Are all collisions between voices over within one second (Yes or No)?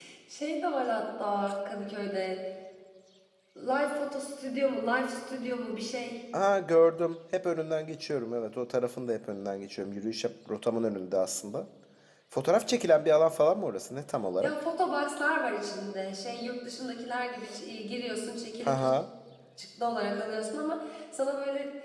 Yes